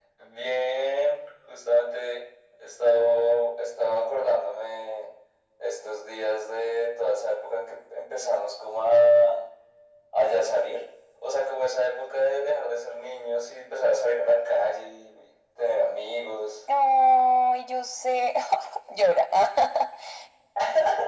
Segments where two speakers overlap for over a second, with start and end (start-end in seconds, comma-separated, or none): none